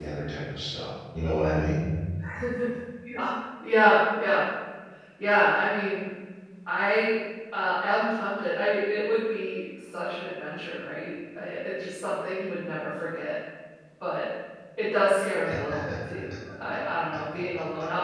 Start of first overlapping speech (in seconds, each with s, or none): none